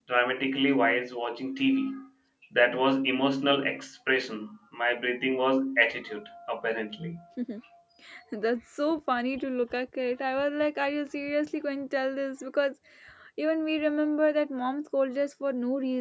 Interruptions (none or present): none